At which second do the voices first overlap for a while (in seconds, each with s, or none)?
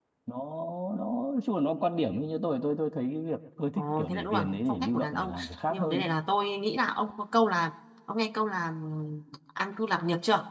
3.8 s